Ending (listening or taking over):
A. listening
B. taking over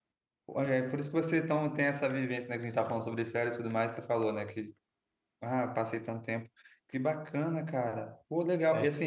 A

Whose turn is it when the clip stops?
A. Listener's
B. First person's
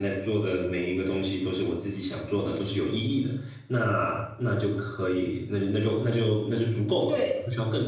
A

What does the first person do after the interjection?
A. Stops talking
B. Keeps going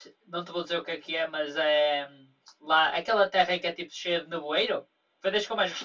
A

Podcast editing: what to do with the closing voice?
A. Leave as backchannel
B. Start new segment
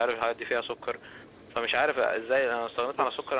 A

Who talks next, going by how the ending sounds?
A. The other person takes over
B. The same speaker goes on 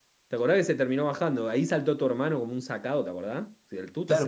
A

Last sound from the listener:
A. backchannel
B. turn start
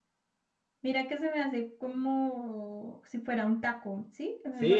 B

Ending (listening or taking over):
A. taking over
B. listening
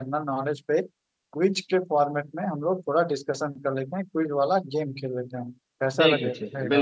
A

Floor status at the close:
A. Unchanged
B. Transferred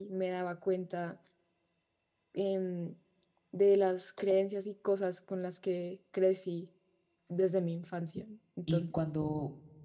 B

